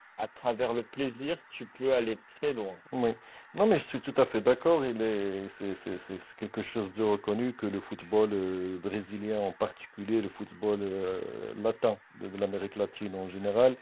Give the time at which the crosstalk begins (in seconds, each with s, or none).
none